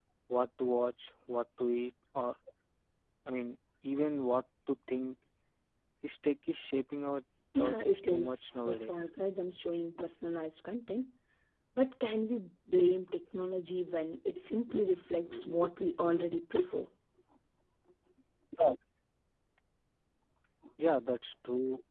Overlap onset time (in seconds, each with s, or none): 7.5 s